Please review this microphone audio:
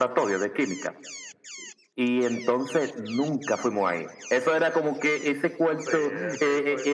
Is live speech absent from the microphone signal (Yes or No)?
No